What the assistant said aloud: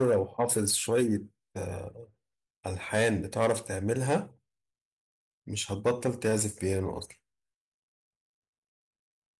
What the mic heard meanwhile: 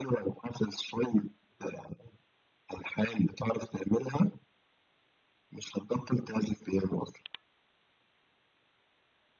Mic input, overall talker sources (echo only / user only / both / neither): echo only